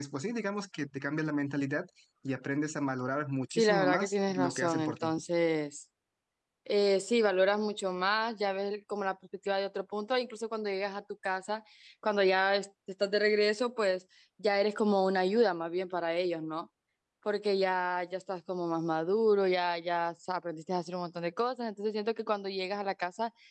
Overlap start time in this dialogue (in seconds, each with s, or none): 3.5 s